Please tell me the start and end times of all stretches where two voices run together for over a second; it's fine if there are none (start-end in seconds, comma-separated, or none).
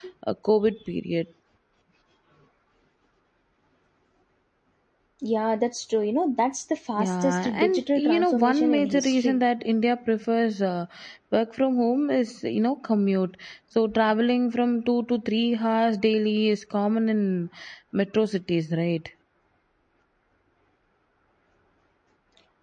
7.0-9.4